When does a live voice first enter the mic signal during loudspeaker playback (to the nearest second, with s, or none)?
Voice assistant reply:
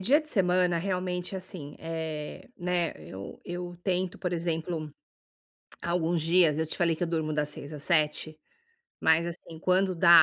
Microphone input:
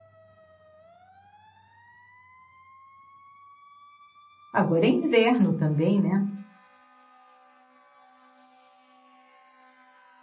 5 s